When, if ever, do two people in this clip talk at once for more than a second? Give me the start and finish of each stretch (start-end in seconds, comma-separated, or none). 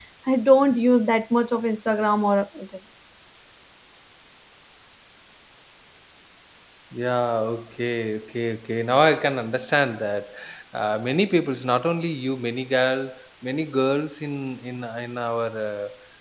none